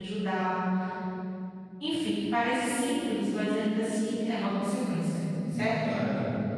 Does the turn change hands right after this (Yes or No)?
Yes